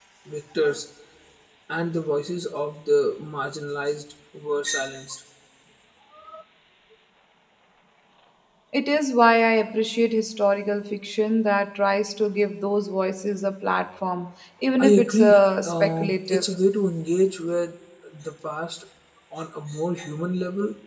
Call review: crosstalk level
present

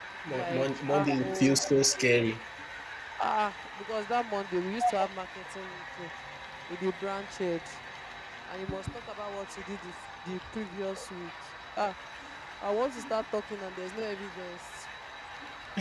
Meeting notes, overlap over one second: present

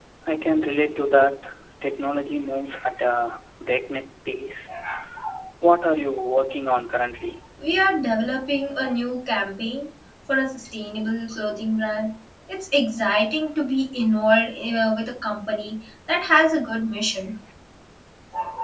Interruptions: none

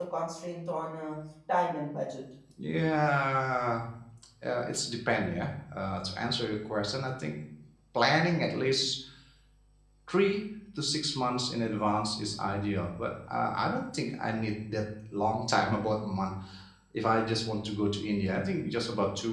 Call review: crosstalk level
none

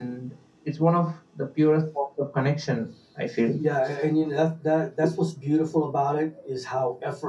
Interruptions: none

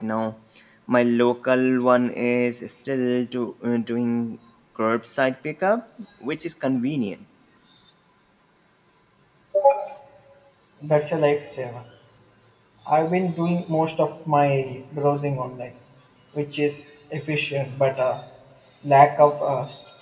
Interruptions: none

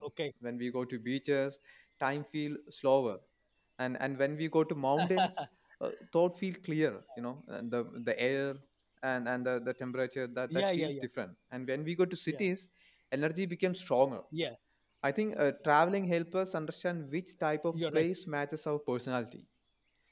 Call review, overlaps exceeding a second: none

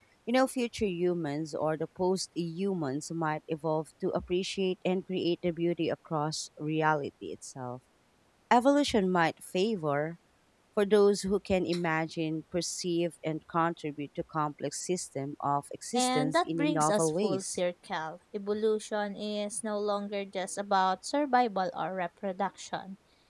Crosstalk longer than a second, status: present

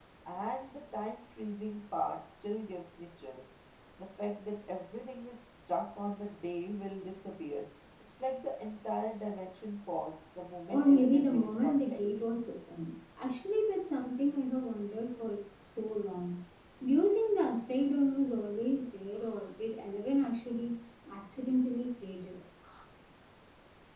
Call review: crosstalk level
present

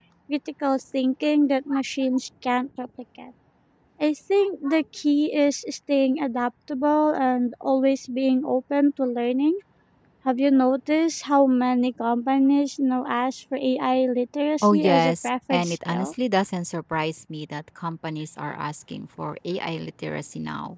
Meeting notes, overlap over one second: present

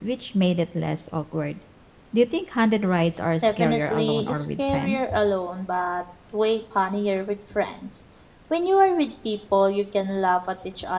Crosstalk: present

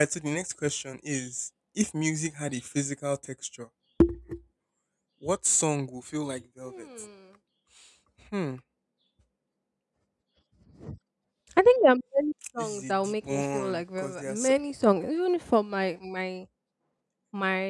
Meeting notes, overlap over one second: present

